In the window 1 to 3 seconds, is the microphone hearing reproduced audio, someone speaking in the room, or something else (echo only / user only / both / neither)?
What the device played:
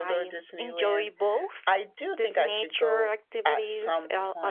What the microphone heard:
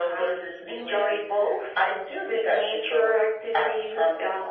echo only